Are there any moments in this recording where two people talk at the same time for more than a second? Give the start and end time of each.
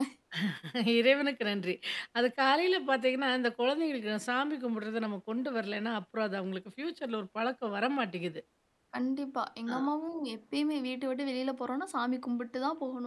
none

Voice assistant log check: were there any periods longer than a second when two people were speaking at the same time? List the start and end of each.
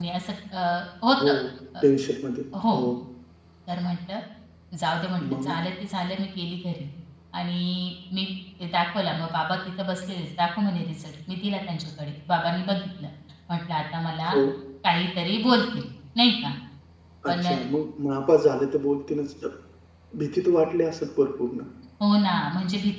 none

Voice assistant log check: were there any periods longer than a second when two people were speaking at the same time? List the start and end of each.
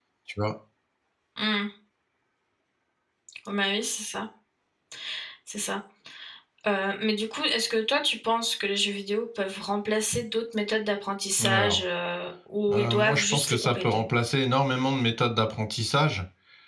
12.7-14.0

